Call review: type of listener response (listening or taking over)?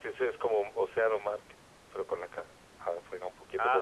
taking over